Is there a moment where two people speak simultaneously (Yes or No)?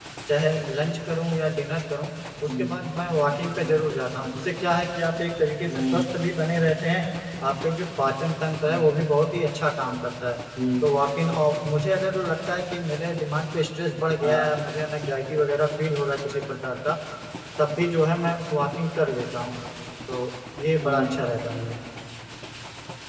Yes